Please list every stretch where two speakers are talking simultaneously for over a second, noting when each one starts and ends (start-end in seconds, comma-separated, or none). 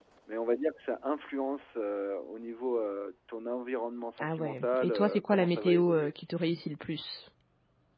4.2-6.2